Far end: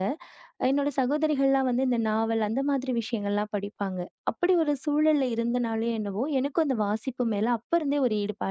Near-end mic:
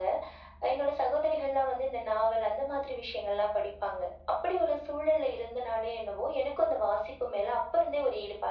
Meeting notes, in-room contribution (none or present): none